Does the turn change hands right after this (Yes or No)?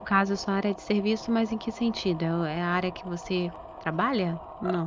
Yes